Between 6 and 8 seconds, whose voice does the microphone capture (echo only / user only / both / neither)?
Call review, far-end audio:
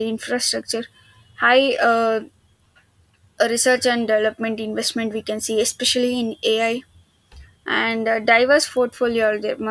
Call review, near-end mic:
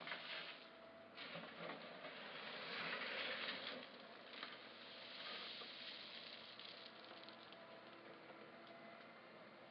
neither